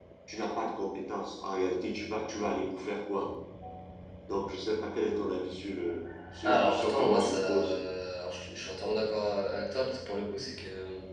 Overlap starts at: 6.4 s

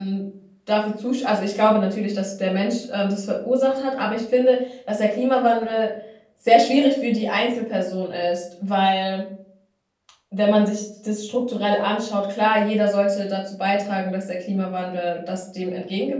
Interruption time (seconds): none

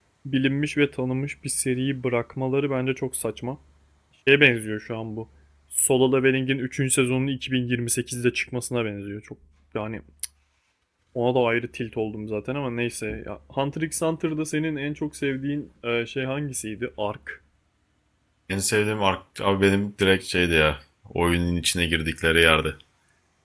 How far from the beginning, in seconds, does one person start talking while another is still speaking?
none

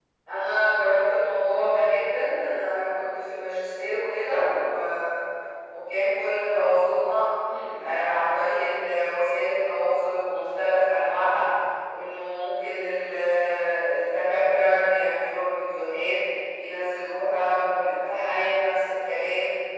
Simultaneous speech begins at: none

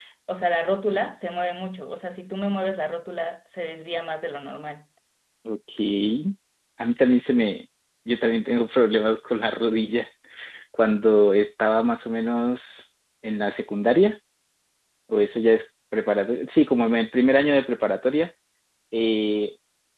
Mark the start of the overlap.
none

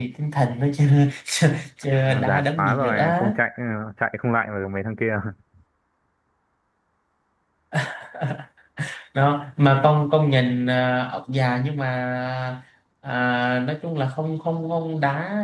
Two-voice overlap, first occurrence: 2.0 s

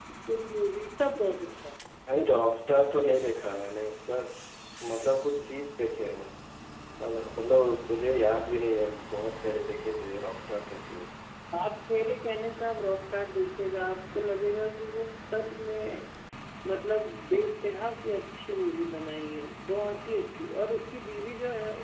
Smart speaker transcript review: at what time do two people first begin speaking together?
none

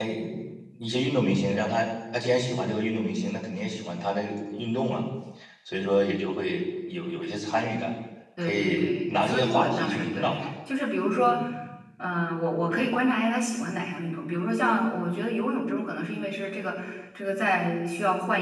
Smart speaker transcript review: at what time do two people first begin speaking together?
8.4 s

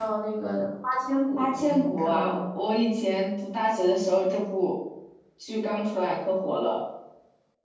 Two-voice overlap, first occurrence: 1.4 s

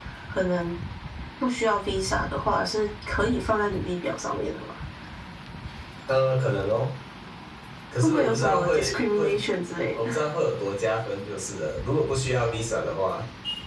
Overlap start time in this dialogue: 8.0 s

